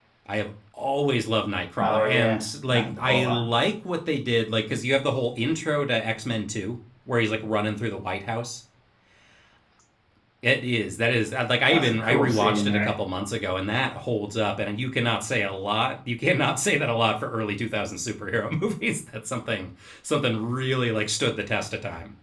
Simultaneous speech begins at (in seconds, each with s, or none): 1.8 s